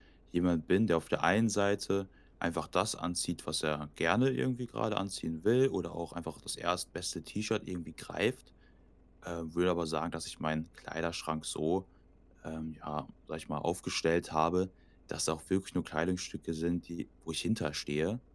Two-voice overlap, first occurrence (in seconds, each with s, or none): none